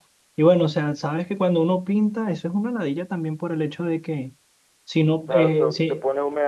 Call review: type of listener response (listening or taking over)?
taking over